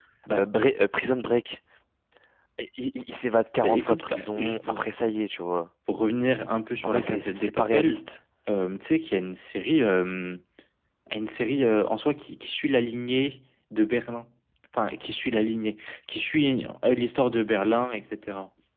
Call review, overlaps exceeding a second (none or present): present